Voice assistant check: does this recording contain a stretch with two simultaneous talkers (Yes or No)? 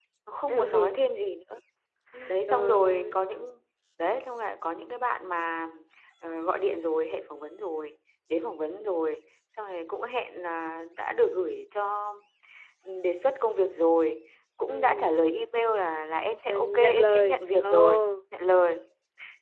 Yes